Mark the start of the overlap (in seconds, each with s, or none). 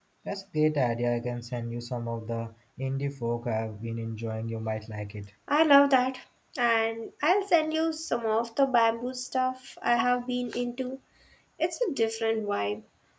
none